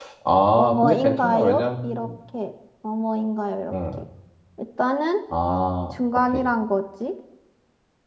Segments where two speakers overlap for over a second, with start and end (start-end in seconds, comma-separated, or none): 0.6-2.1